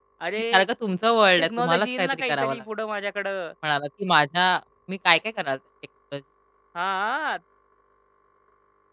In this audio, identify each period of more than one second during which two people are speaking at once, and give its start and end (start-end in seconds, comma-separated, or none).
1.4-2.6